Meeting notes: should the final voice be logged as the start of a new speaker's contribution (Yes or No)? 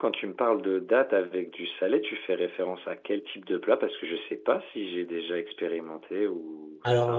Yes